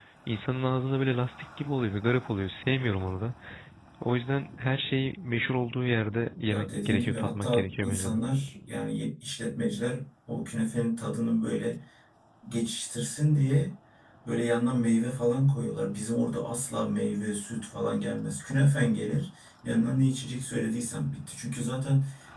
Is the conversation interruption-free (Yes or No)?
No